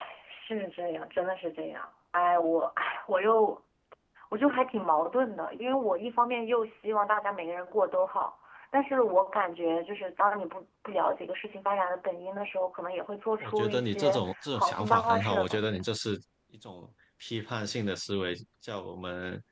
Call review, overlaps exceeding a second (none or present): present